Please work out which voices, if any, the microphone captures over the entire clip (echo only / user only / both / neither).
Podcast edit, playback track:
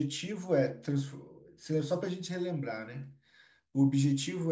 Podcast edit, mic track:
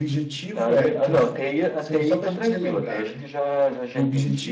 both